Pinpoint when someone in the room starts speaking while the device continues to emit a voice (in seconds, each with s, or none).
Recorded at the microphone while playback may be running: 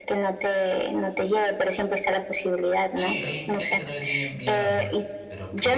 3.0 s